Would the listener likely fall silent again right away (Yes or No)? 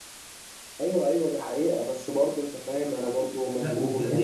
No